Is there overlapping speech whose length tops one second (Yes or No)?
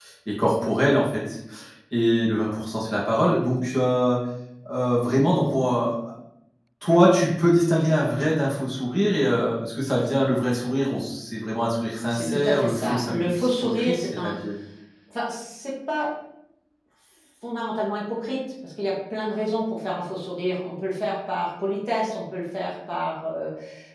Yes